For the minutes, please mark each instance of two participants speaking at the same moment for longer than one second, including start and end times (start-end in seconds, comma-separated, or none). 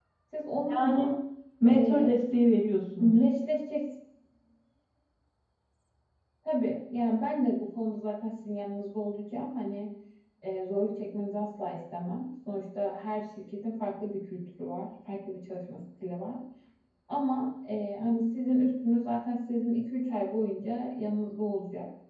none